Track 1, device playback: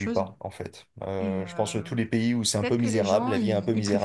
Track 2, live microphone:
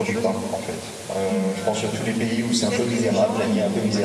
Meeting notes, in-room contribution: none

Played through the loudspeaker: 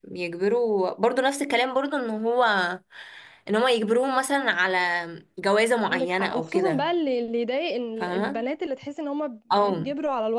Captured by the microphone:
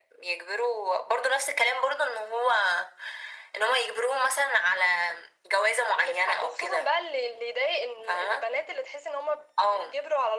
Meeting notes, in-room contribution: none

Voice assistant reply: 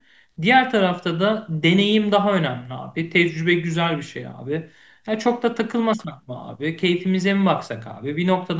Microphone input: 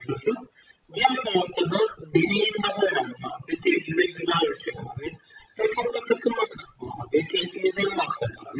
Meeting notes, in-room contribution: none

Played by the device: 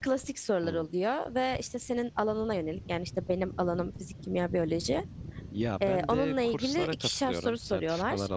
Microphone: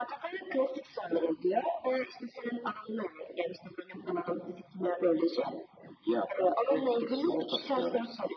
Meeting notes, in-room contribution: none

